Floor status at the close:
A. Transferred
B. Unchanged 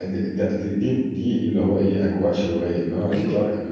B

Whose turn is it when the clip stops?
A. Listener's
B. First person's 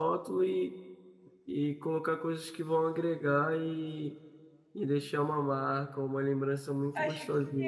A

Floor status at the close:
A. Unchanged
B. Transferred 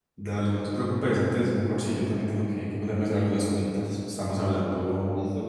B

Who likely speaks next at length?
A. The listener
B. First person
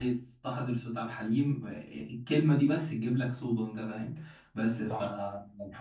B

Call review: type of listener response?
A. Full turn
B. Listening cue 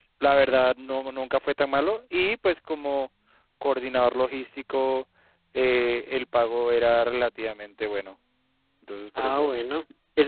A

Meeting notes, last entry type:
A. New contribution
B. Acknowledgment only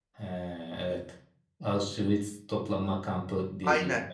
A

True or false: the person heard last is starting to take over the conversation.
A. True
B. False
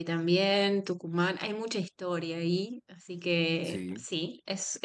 B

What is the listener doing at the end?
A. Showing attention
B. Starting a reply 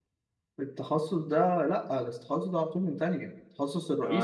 B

